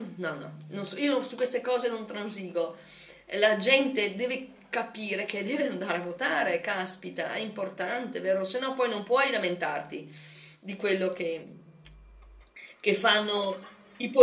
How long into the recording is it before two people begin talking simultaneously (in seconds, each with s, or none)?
none